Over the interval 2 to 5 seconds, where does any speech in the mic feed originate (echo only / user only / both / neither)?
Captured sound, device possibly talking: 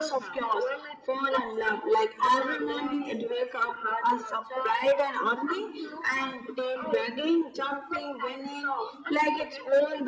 echo only